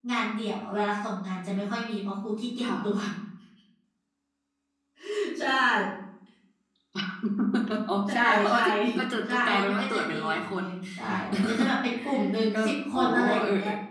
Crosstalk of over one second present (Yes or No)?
Yes